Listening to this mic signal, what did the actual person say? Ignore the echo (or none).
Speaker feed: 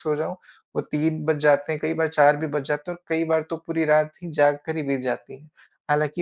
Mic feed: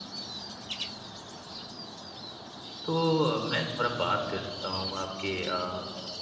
तो अ, मैं थोड़ा बात करता हूँ आपके अ,